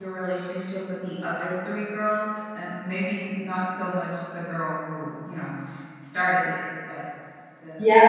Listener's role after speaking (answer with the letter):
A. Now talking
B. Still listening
A